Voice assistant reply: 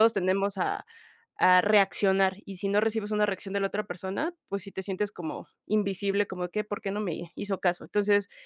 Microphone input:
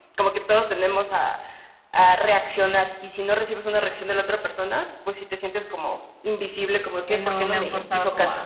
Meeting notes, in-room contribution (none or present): present